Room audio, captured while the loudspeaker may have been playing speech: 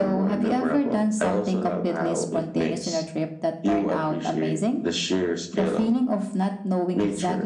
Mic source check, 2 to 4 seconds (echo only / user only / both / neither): echo only